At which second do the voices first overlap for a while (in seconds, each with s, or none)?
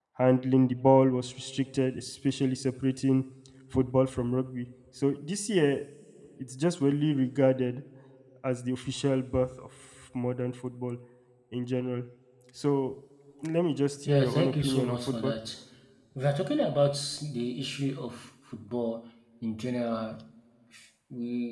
14.1 s